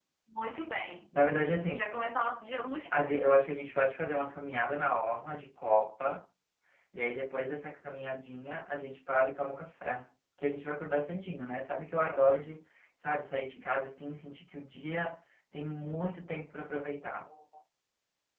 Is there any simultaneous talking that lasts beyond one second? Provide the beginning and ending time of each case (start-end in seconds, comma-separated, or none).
none